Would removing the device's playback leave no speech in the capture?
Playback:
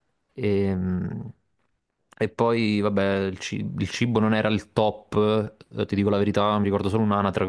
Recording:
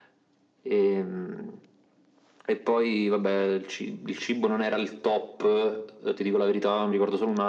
Yes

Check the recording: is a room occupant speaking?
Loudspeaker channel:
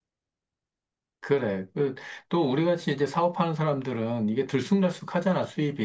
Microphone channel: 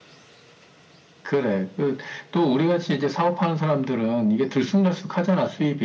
No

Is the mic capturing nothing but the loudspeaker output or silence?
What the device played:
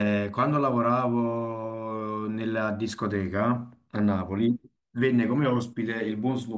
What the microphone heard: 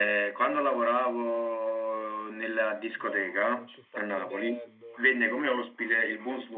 No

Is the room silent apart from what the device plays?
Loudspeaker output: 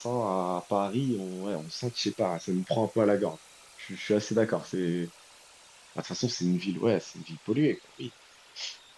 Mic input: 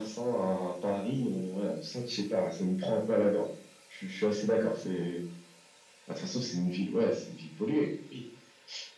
Yes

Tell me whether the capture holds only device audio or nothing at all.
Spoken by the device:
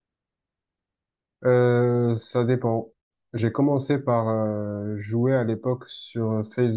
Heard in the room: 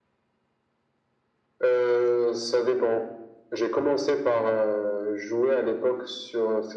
Yes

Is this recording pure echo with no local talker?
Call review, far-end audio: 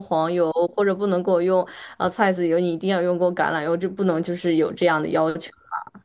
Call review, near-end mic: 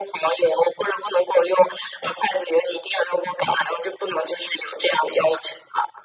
Yes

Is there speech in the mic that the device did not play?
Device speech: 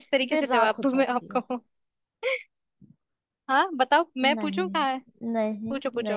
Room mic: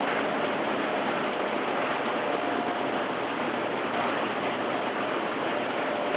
No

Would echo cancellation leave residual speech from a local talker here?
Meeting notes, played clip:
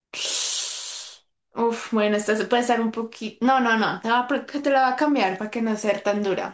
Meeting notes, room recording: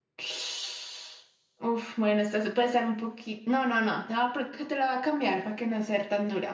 No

